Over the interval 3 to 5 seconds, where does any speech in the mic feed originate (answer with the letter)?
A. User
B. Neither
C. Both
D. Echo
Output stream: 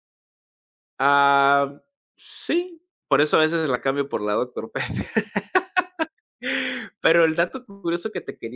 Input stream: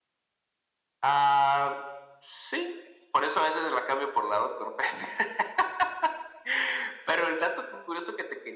D